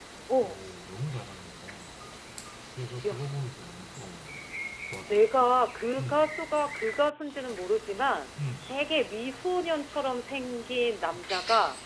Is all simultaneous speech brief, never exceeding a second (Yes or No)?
Yes